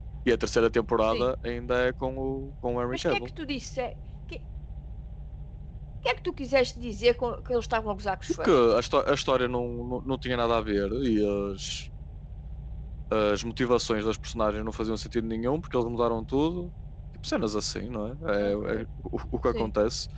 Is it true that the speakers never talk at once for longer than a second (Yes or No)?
Yes